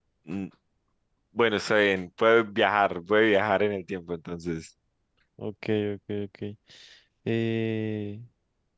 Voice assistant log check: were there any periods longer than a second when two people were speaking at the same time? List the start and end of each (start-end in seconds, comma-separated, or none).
none